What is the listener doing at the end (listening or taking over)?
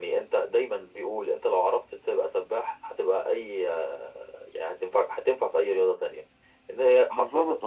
listening